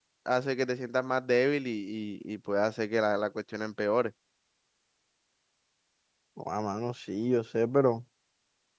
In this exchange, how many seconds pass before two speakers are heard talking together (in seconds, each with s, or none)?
none